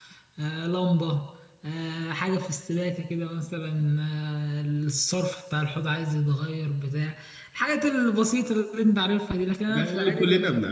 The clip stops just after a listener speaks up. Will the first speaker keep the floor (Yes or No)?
No